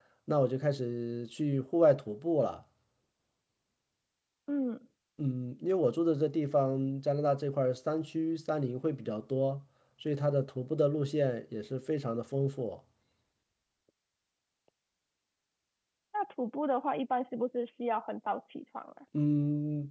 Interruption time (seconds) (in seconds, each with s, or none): none